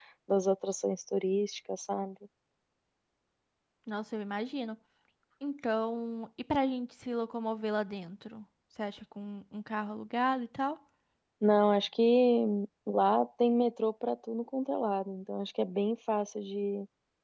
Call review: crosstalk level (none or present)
none